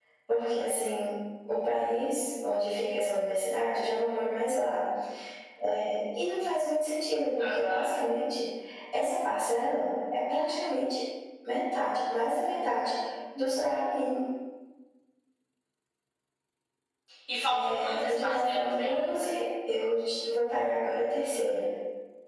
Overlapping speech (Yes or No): Yes